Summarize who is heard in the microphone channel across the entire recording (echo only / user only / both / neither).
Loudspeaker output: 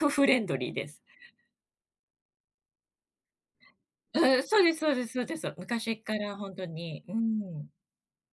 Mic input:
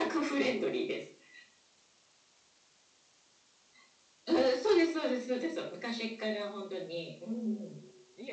both